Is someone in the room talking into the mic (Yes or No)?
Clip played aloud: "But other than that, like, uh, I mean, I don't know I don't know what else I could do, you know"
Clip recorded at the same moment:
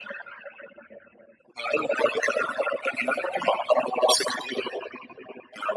No